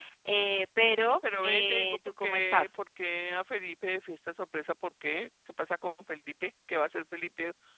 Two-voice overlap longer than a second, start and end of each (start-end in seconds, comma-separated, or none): 1.4-2.7